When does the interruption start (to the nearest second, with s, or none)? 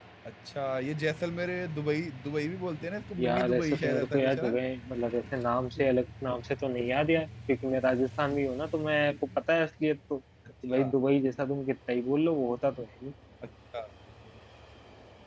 3 s